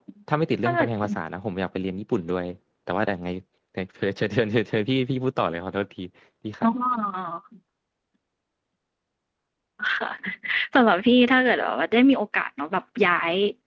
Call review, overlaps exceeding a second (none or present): none